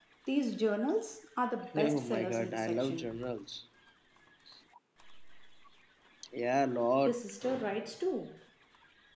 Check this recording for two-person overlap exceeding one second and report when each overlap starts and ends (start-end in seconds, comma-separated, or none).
1.7-3.2